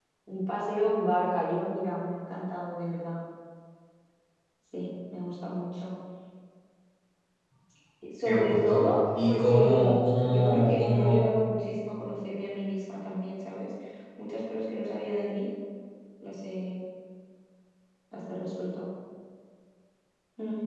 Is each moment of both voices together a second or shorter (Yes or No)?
No